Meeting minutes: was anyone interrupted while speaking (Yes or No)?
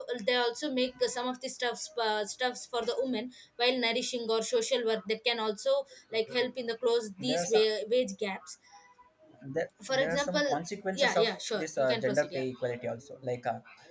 Yes